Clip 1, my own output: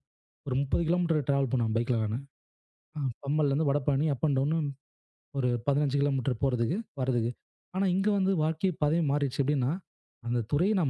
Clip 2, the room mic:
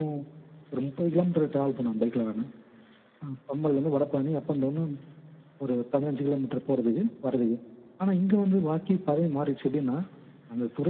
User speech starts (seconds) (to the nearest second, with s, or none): none